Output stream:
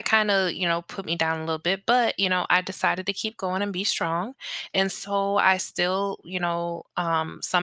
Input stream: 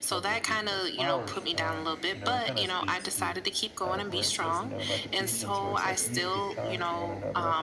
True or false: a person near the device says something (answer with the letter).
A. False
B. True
B